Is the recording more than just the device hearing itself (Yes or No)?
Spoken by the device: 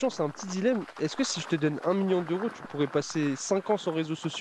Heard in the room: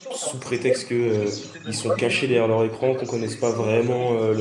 Yes